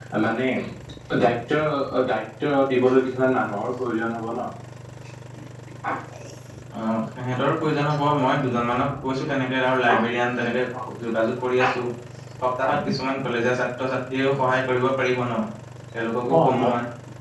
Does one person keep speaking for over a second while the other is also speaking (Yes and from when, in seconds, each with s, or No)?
No